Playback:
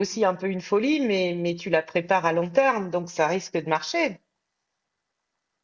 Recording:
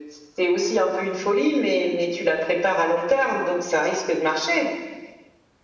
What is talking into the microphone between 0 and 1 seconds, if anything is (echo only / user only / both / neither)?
echo only